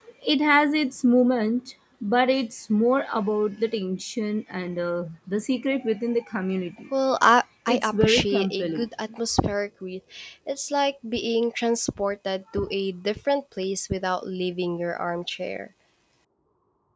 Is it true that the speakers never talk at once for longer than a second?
No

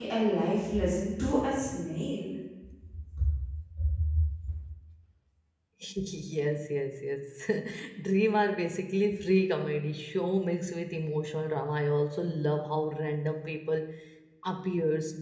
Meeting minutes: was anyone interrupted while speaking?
No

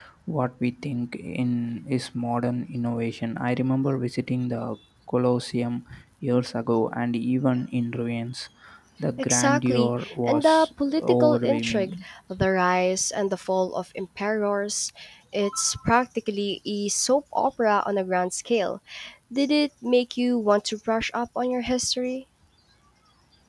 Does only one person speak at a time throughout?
No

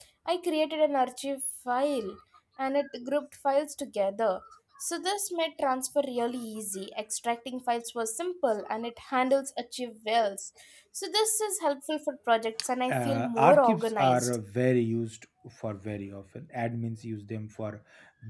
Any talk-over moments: Yes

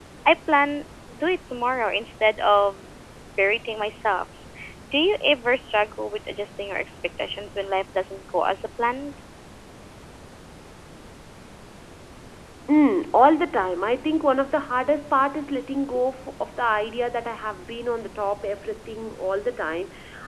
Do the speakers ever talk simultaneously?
No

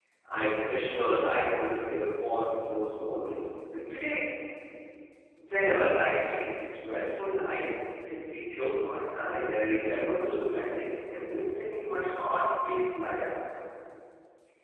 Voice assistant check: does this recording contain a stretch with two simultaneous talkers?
No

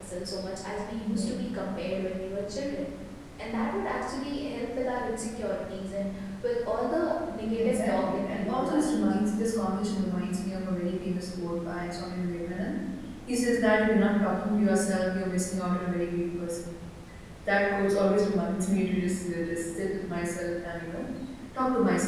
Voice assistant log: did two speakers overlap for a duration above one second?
Yes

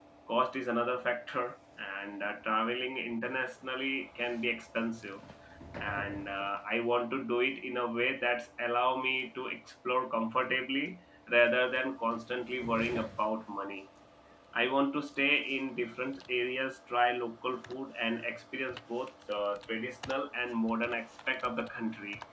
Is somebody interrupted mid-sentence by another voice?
No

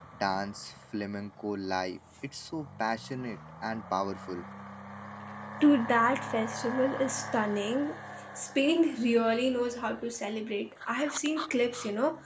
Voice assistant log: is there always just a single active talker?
Yes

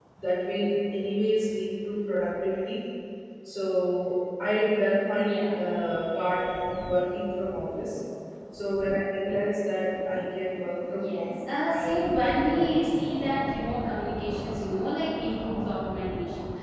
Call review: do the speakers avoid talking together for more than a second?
No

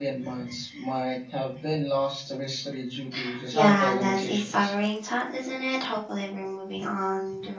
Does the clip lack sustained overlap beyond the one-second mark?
No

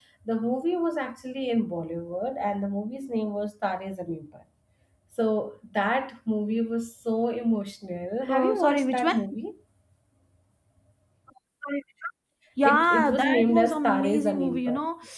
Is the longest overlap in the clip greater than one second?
Yes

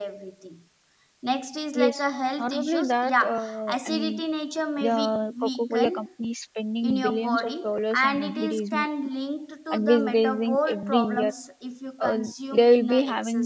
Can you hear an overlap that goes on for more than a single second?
Yes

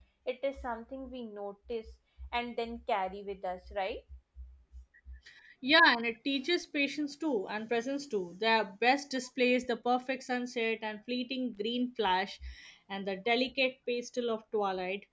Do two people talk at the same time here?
No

